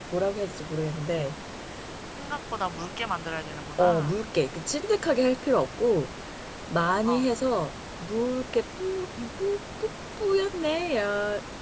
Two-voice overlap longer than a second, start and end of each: none

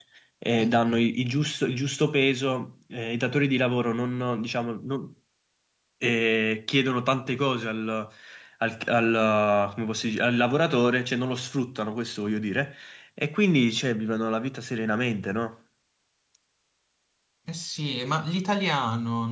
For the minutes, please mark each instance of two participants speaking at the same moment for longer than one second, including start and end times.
none

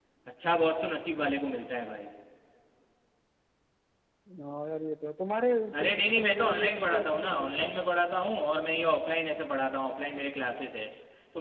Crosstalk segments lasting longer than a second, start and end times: 5.8-7.7

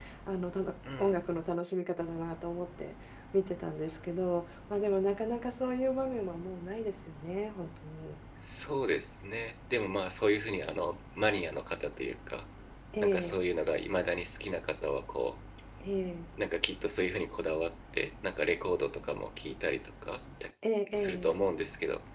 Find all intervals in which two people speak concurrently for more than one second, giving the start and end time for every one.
none

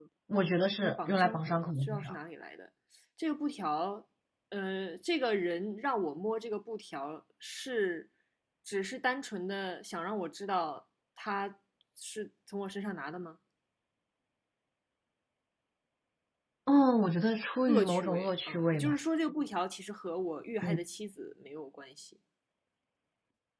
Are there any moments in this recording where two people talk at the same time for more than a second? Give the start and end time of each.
0.8-2.2, 17.6-19.0

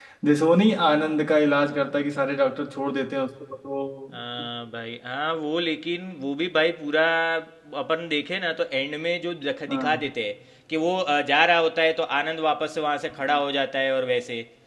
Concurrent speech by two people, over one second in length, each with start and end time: none

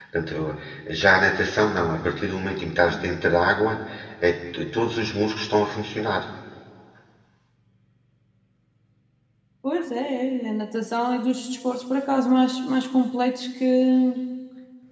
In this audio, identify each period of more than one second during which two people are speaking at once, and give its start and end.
none

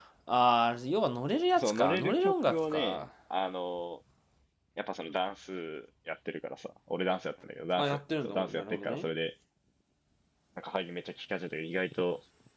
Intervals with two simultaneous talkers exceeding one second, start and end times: 1.6-3.0, 7.8-9.1

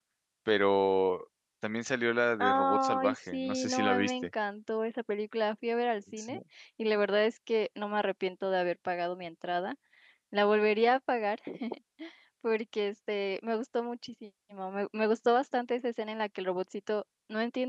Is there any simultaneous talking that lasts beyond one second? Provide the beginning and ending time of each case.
2.4-4.3

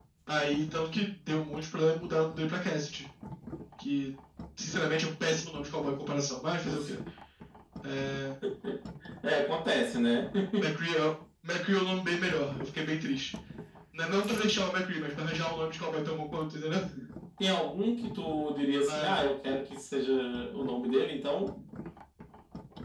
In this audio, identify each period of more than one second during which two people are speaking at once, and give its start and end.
none

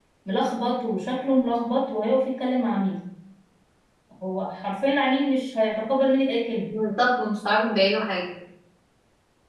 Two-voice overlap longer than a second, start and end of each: none

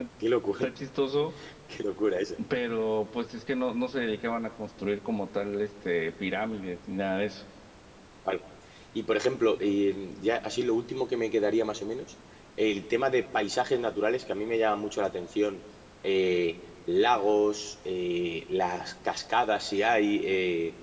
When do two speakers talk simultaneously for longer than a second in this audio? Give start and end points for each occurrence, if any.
none

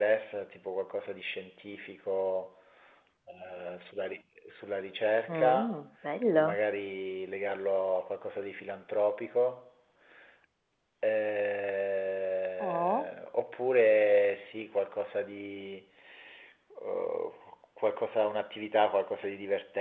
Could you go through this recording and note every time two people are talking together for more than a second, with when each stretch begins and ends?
none

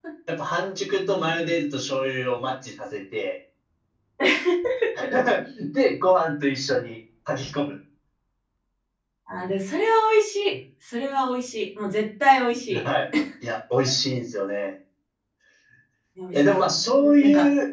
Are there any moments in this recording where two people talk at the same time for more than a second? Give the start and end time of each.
none

